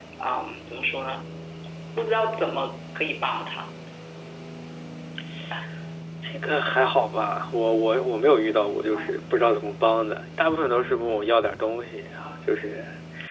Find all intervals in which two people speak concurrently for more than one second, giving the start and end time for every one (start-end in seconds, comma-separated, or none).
none